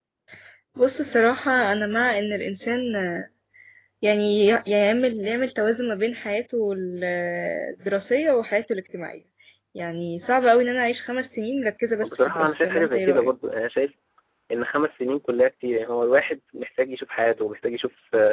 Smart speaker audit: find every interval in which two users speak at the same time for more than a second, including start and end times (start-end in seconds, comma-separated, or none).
12.0-13.3